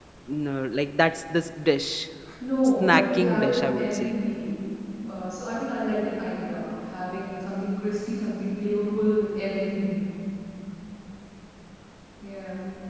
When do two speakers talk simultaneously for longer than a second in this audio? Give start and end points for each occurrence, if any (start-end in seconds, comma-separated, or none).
2.8-4.2